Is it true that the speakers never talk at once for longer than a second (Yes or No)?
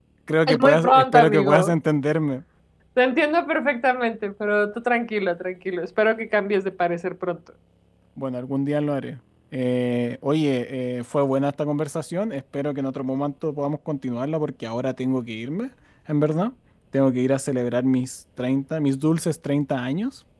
No